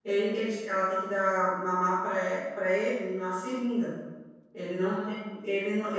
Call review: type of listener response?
listening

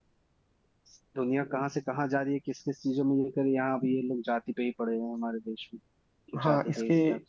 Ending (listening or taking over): taking over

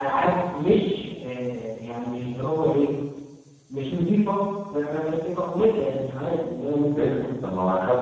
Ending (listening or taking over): taking over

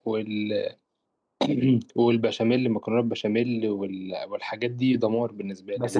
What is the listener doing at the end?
taking over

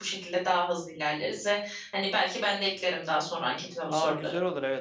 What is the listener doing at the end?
taking over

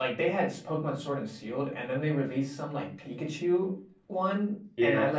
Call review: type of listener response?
listening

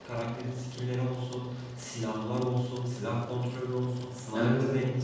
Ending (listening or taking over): taking over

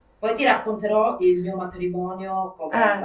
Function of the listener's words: taking over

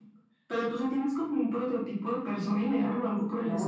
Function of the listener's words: taking over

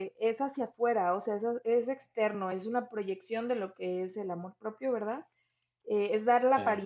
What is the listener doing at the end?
listening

